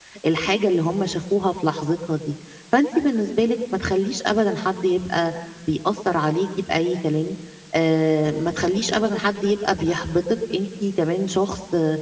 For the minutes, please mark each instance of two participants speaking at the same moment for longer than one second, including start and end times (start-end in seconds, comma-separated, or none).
none